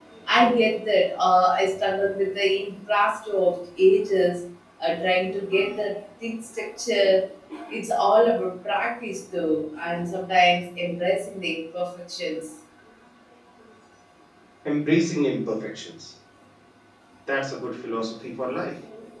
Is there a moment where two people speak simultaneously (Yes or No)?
No